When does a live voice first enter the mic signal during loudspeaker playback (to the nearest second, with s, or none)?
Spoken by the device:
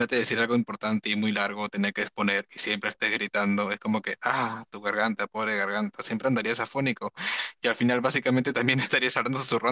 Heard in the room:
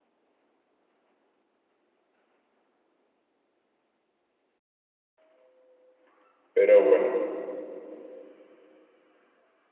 7 s